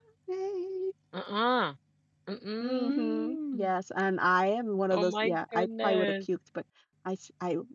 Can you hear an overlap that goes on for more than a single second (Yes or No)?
Yes